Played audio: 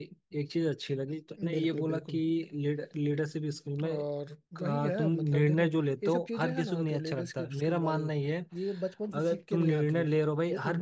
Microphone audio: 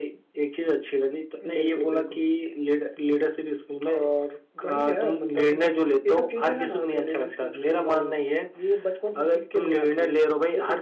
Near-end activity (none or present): none